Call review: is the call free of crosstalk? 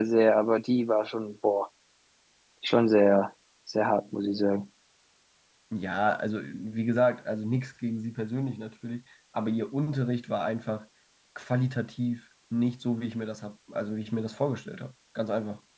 Yes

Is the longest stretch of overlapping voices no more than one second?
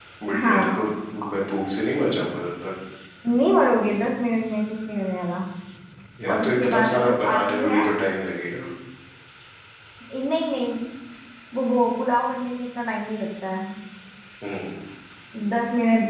No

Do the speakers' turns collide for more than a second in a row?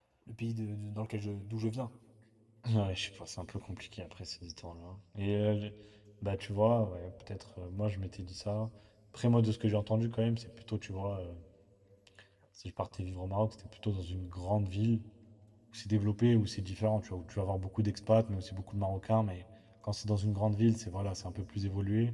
No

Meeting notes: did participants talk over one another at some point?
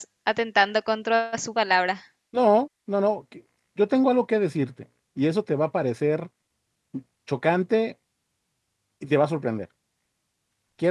No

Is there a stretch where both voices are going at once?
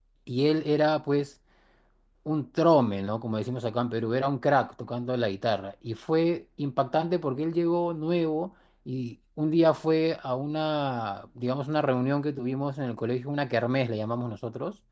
No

